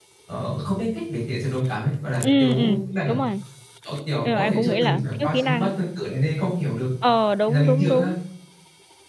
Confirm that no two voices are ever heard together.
No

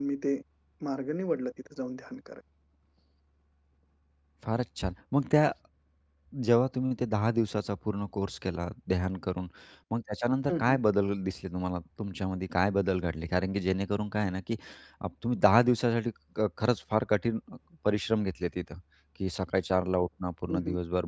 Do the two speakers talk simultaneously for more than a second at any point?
No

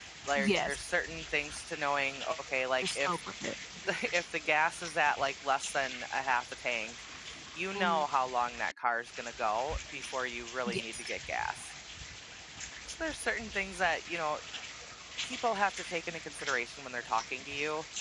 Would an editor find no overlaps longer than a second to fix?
Yes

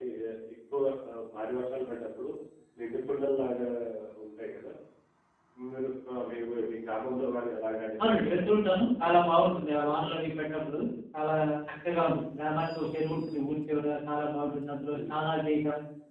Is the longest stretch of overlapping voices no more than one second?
No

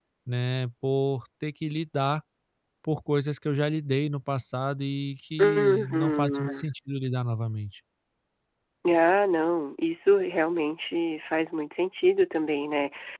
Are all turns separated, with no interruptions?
No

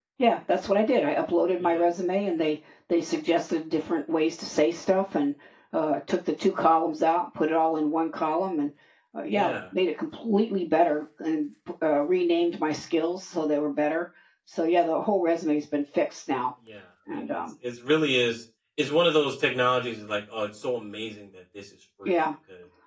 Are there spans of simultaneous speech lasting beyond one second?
No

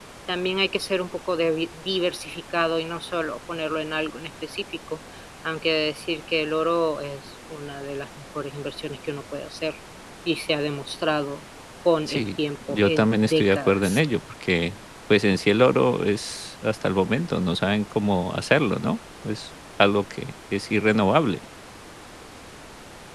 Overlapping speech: Yes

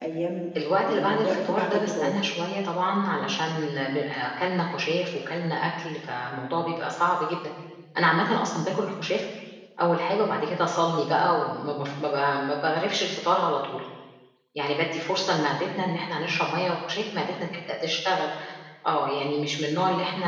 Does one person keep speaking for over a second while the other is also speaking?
Yes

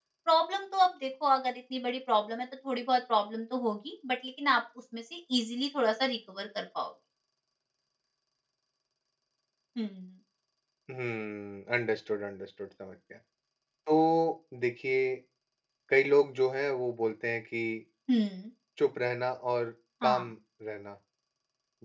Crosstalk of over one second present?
No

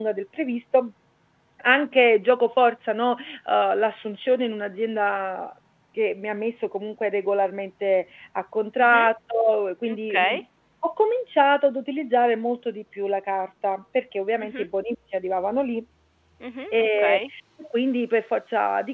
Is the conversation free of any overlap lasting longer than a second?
Yes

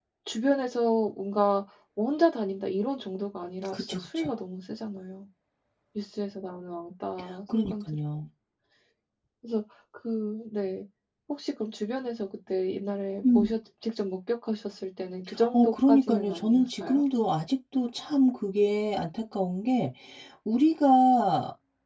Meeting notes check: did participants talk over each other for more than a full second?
Yes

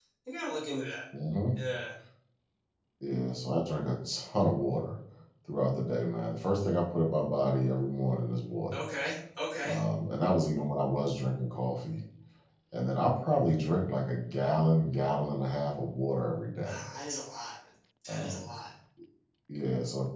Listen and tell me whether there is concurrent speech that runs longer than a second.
No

